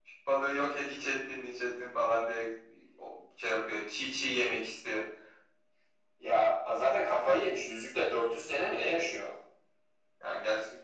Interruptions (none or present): none